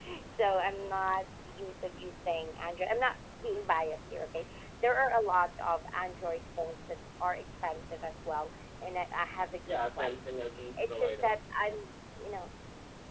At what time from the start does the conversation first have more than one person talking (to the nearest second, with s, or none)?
10 s